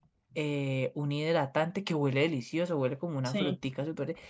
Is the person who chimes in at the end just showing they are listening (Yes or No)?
Yes